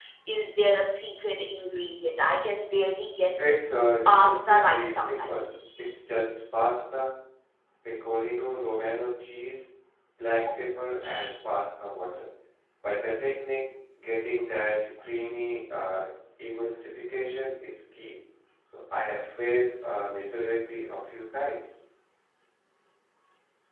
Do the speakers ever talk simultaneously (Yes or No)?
Yes